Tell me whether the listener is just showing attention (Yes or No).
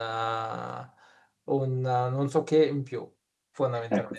No